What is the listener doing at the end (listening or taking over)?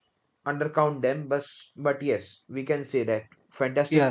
taking over